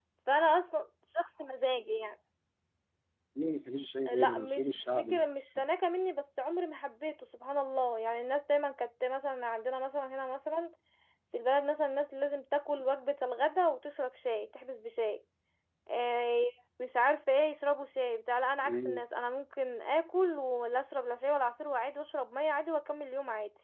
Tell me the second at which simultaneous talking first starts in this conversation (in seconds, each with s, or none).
4.1 s